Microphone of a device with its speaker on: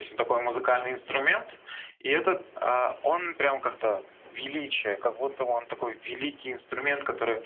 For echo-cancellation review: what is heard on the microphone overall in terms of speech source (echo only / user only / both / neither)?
echo only